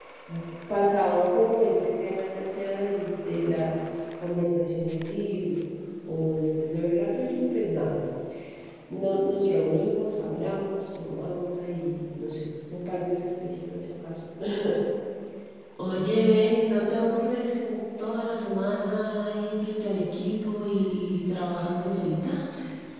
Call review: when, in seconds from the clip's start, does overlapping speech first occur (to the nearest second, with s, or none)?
none